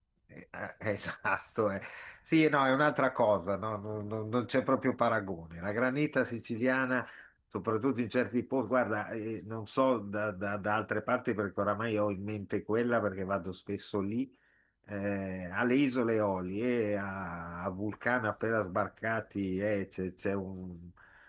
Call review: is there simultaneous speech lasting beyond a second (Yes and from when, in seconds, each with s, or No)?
No